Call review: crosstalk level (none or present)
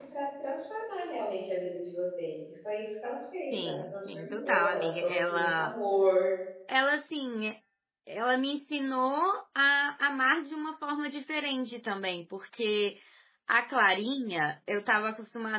present